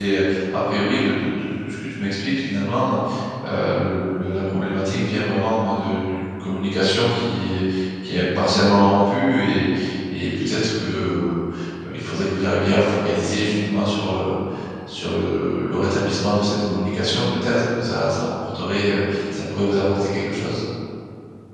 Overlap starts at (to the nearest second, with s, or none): none